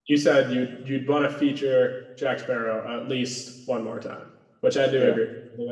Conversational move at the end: listening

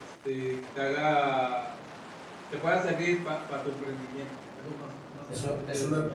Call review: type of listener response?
taking over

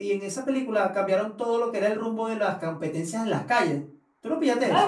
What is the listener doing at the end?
taking over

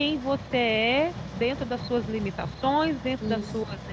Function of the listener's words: listening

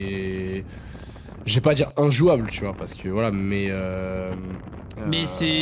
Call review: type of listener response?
taking over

